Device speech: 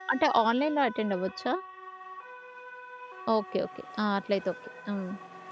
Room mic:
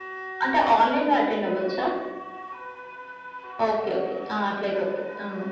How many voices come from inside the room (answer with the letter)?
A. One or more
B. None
B